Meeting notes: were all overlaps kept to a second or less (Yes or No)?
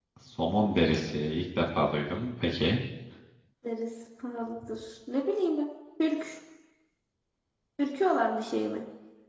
Yes